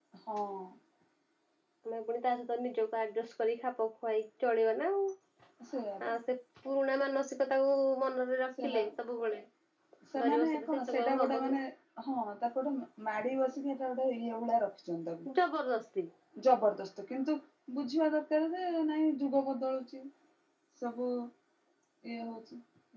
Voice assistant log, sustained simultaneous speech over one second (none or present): present